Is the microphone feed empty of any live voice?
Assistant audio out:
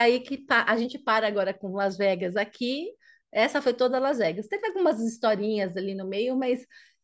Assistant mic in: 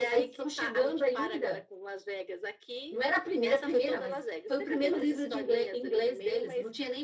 No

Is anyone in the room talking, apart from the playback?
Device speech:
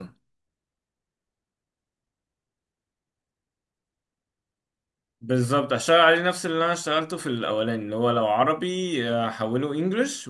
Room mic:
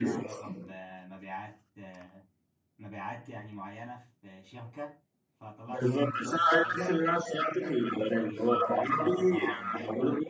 Yes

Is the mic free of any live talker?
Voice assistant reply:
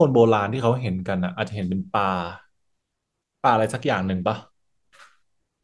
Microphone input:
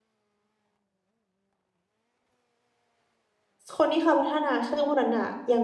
No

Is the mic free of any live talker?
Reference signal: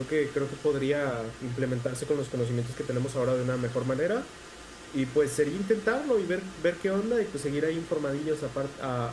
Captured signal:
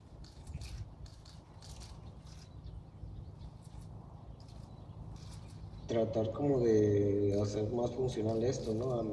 No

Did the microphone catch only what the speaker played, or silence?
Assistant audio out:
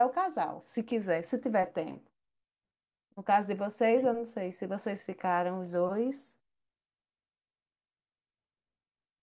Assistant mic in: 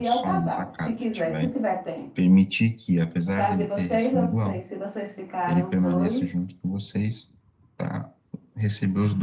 No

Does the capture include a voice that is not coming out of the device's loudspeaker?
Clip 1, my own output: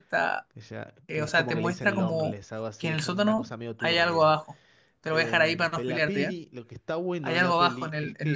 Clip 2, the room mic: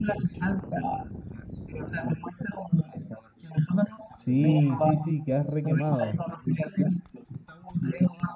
Yes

